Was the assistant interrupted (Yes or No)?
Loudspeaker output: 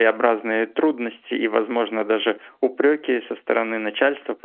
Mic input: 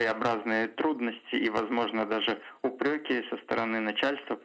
No